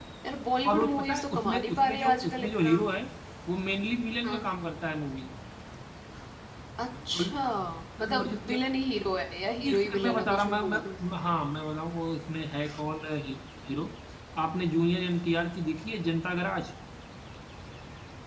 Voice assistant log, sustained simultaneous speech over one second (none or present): present